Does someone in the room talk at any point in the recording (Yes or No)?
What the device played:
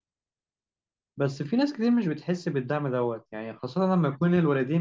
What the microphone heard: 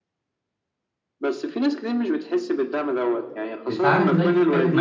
Yes